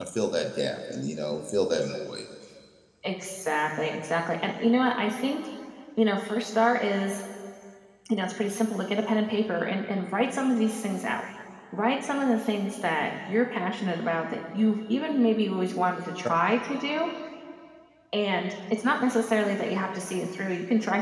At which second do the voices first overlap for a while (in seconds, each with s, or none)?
none